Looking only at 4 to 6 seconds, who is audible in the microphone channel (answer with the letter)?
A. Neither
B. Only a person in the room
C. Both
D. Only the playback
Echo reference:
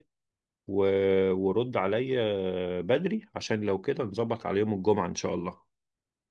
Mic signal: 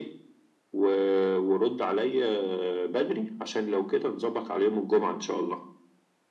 D